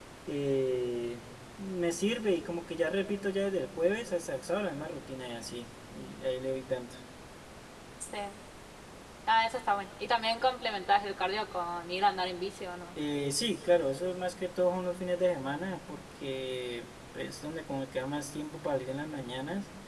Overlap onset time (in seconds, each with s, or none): none